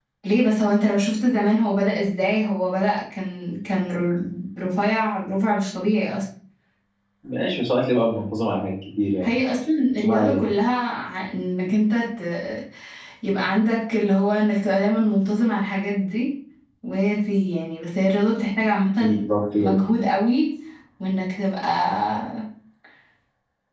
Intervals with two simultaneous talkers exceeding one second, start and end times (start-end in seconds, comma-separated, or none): none